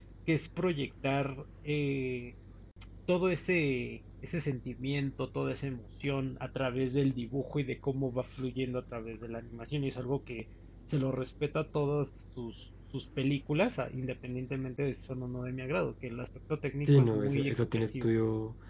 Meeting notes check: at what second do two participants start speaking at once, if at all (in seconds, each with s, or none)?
16.9 s